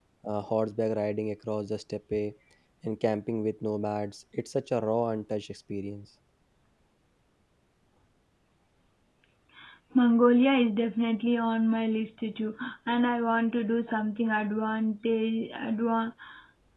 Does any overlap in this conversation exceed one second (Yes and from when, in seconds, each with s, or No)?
No